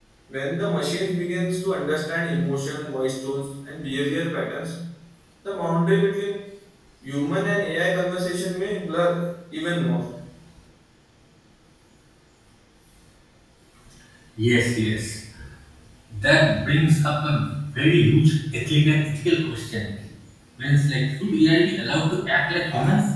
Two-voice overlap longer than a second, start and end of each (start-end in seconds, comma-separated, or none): none